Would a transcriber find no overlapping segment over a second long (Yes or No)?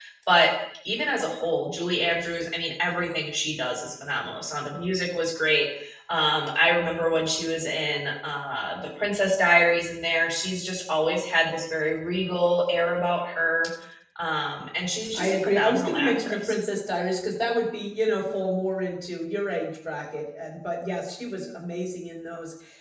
No